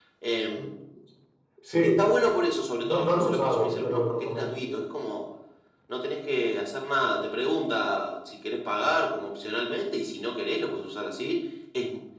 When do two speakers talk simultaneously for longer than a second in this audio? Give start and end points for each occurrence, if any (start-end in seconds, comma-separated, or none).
2.8-4.8